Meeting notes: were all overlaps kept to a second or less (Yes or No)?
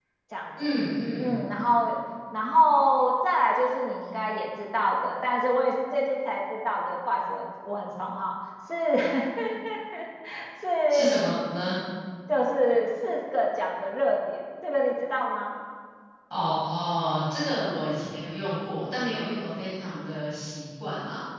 Yes